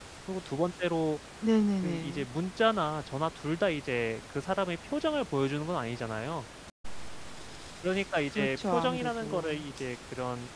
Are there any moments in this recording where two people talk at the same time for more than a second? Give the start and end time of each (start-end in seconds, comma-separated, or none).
8.3-9.5